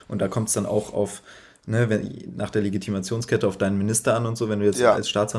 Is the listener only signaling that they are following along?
Yes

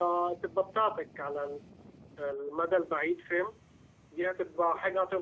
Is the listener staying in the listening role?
Yes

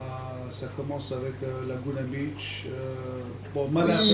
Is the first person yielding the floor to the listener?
Yes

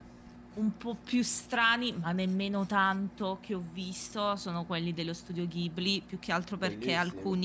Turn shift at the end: No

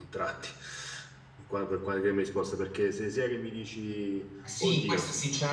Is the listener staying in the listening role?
No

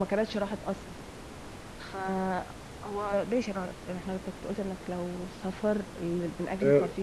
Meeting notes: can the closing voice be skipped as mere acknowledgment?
No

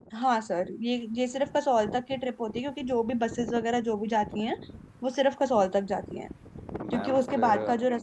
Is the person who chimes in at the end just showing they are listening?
Yes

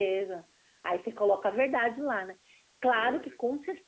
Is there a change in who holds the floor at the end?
No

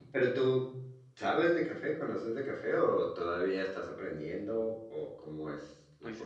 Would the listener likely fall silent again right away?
No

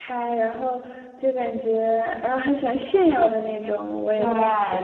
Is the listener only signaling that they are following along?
No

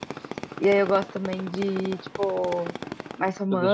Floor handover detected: No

